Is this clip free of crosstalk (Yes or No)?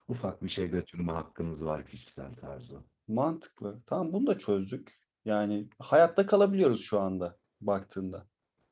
Yes